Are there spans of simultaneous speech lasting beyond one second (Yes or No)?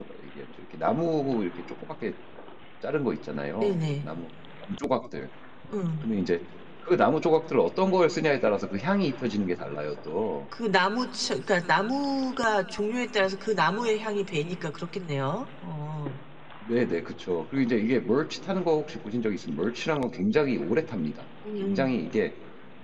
No